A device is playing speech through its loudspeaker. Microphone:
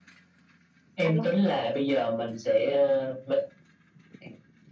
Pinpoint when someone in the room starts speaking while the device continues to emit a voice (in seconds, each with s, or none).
1.0 s